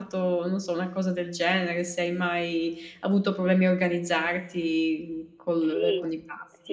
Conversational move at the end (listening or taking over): taking over